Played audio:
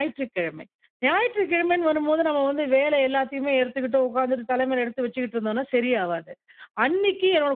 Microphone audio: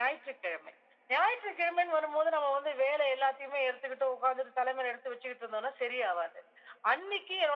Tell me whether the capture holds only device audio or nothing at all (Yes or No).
Yes